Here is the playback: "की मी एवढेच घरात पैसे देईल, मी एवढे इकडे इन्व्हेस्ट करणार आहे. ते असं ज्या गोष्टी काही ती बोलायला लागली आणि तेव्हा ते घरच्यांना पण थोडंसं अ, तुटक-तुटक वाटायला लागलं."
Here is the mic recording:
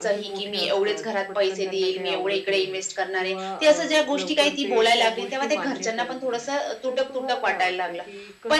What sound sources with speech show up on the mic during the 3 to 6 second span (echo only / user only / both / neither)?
both